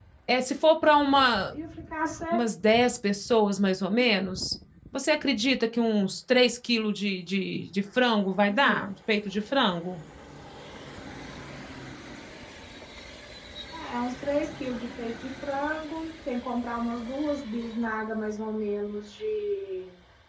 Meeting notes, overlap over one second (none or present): none